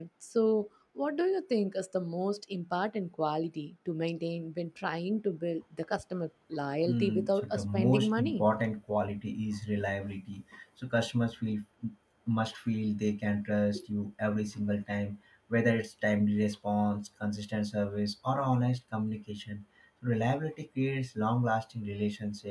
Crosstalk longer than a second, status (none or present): present